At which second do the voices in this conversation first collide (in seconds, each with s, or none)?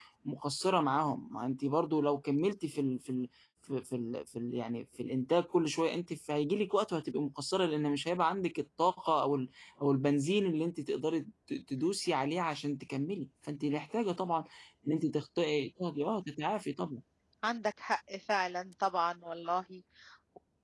none